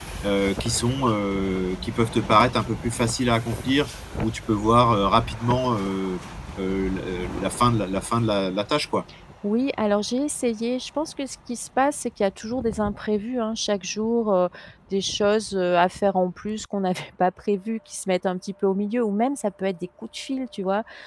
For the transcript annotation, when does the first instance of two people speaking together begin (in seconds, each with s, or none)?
none